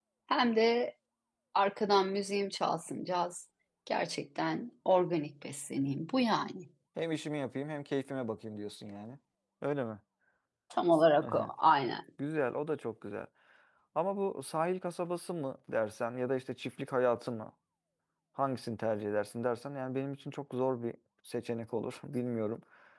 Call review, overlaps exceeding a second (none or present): none